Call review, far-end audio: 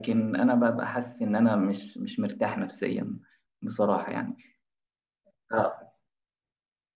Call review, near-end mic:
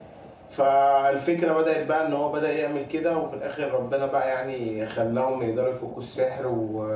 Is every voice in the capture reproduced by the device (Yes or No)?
No